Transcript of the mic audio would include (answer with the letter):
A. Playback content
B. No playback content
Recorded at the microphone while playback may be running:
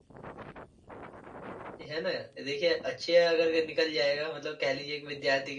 B